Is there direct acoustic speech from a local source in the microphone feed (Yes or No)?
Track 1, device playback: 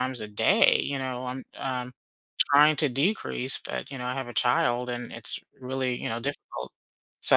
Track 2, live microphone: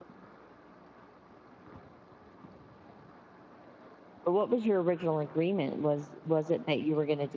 Yes